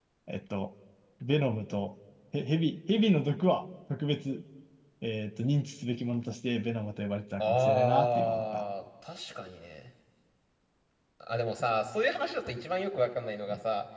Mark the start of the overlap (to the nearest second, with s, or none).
7 s